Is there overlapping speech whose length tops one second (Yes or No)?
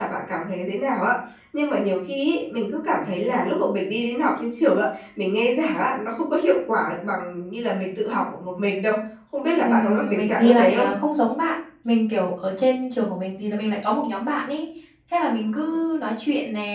Yes